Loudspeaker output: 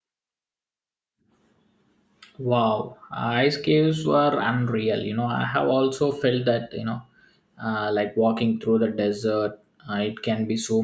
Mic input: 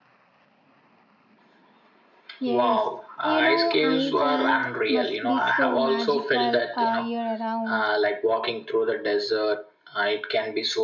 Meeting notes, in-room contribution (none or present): present